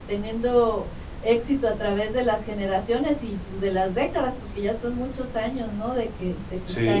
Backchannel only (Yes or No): No